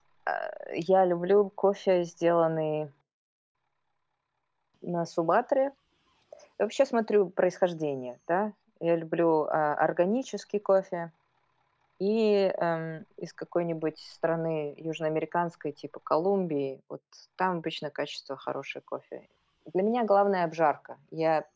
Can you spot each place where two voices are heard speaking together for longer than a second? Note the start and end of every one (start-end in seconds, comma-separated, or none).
none